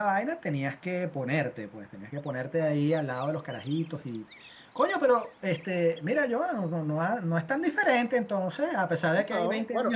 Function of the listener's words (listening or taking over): taking over